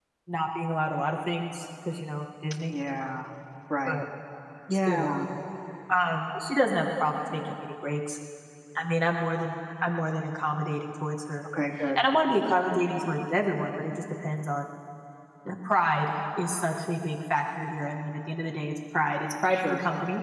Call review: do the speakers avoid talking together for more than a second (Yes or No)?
Yes